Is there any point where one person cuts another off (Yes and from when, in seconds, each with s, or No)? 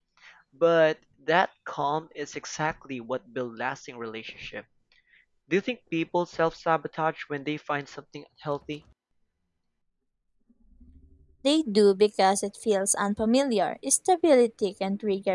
No